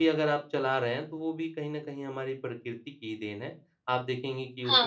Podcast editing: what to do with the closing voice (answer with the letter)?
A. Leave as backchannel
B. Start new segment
A